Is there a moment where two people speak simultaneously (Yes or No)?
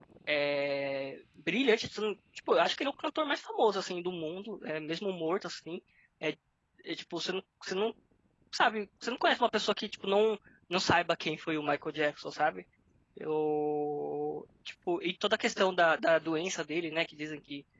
No